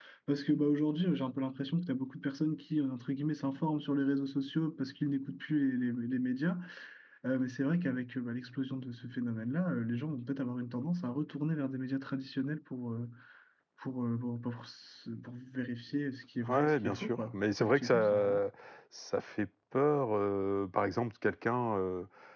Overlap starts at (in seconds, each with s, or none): 16.5 s